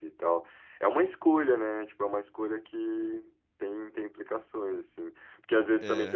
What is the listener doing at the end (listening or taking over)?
listening